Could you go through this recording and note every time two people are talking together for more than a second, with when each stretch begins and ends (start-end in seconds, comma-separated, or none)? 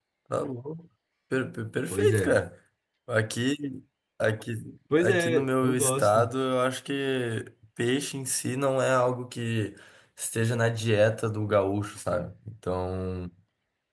5.0-6.3